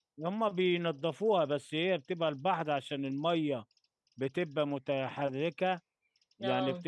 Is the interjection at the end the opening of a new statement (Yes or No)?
No